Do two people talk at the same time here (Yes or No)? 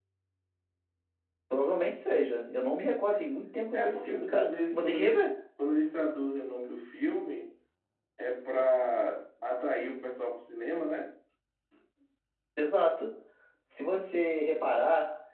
Yes